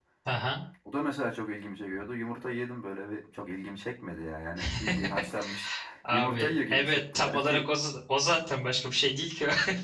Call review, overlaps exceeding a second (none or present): present